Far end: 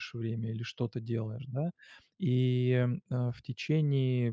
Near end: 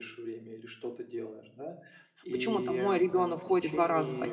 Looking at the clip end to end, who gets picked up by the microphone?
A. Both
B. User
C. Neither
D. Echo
A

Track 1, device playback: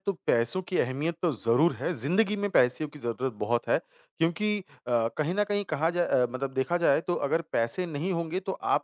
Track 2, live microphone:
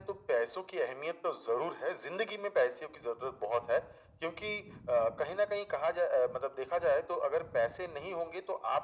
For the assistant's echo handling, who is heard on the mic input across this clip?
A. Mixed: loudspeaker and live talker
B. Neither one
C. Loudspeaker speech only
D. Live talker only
C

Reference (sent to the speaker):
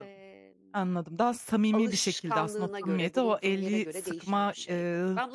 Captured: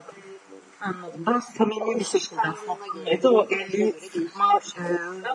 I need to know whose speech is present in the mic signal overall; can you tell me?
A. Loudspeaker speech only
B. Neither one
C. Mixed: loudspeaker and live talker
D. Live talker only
A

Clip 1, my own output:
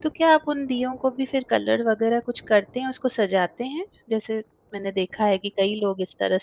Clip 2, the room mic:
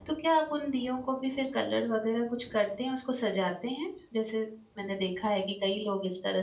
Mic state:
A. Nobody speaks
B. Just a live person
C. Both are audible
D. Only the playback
D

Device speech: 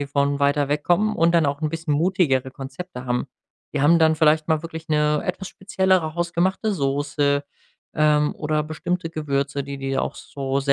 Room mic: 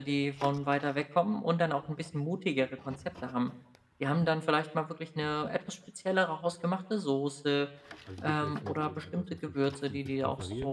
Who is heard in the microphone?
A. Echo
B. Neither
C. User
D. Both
D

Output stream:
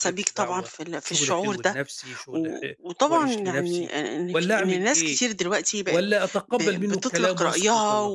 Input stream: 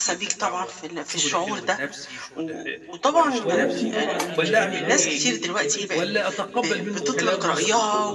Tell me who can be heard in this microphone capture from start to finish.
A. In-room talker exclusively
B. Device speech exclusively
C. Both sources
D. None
C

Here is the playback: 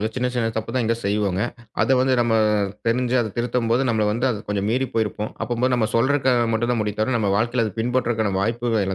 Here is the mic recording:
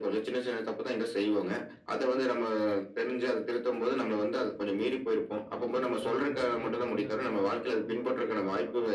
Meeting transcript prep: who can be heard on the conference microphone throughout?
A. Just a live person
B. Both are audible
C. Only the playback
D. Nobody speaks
B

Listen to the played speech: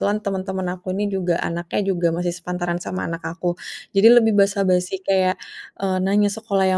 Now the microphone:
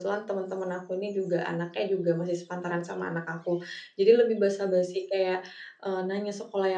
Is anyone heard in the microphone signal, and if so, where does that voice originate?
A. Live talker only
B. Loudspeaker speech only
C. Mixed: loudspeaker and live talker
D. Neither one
B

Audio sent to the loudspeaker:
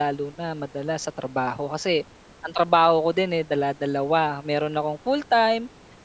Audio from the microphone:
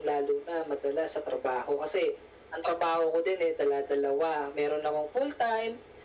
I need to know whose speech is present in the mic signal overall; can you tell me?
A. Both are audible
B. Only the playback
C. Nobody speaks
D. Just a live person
B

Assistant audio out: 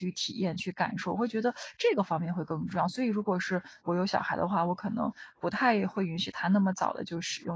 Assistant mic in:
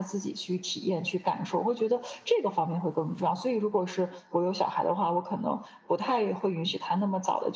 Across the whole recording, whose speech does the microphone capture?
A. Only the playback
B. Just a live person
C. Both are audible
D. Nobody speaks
A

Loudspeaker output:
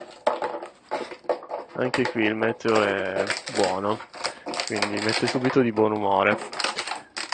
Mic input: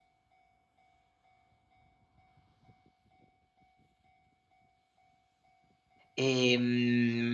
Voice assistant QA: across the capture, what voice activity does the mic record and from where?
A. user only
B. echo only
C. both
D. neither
A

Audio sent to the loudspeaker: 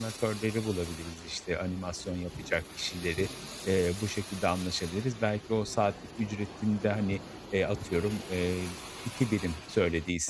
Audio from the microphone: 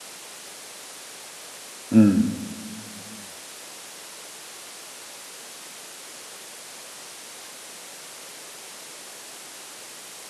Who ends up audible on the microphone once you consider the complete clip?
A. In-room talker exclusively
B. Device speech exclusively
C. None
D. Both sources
A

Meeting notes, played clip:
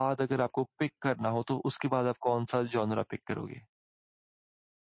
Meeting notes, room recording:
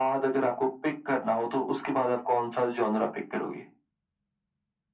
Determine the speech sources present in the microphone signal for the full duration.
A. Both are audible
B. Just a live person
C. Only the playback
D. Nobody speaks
C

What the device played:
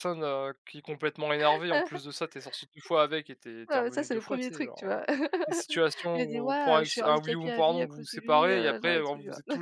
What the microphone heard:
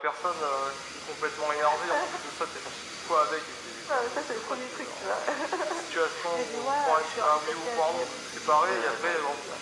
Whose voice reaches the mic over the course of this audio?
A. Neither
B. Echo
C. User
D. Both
B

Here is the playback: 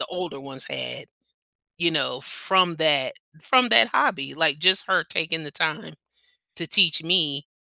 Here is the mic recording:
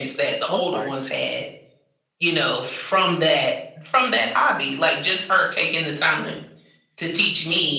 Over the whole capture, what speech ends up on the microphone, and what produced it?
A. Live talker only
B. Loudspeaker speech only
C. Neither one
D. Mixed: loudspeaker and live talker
D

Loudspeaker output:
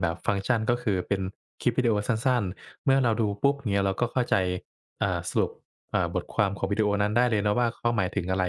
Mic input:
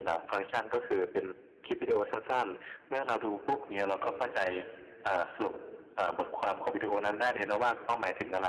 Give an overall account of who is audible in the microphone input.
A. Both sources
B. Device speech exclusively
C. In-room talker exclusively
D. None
B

